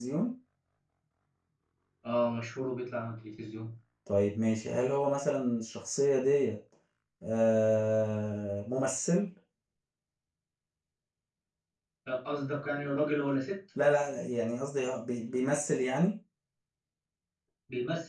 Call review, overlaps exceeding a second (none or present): none